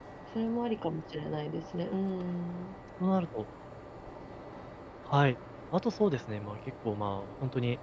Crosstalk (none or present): none